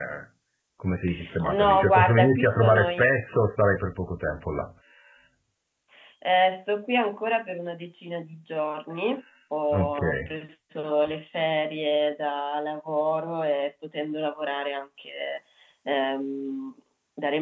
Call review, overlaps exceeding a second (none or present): present